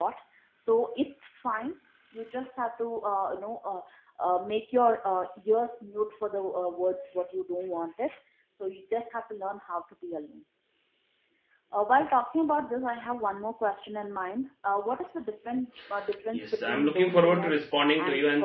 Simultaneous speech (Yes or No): Yes